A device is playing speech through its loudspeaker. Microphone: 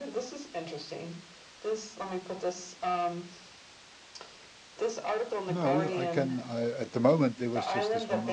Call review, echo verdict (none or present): present